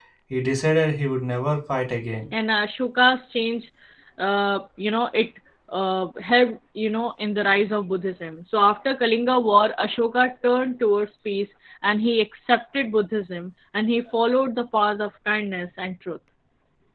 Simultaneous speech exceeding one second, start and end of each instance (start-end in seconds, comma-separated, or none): none